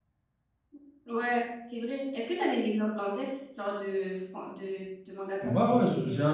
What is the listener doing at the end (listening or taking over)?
taking over